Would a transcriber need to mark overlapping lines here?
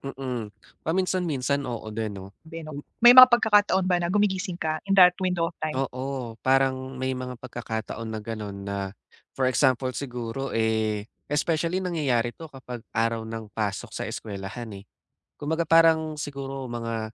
No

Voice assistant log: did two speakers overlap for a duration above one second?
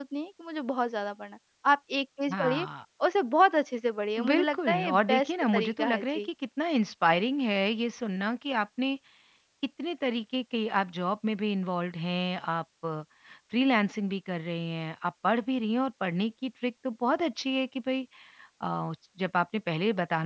Yes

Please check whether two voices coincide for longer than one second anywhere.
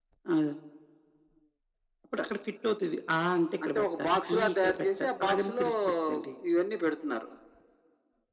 Yes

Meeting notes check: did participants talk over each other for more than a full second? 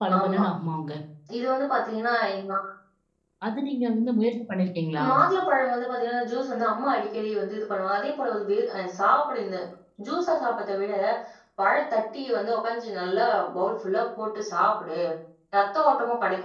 No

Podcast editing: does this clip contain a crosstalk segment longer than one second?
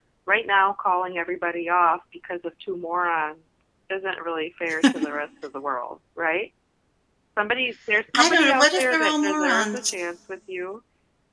Yes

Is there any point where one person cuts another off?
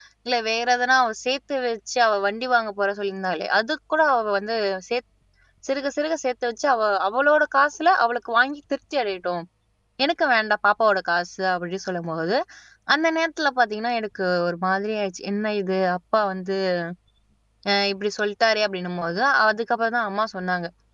No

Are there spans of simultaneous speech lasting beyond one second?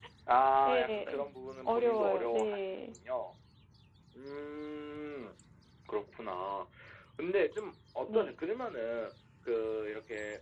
Yes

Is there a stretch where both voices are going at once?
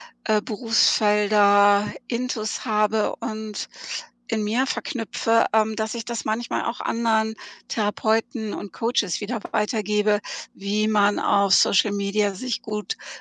No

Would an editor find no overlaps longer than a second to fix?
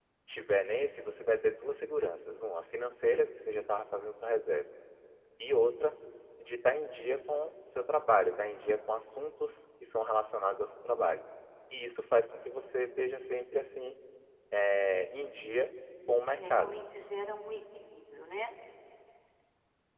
Yes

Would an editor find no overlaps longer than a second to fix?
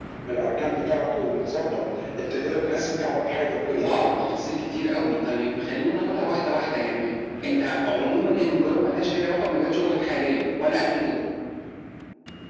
Yes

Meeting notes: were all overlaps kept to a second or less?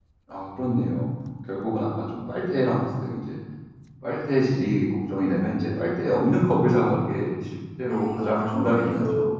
No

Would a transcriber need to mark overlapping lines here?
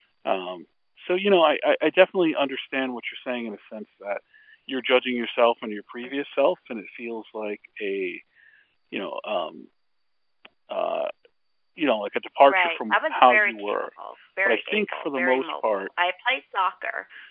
Yes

